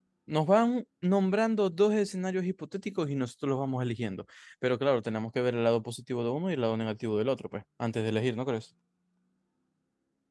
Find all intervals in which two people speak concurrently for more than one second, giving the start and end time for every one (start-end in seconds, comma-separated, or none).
none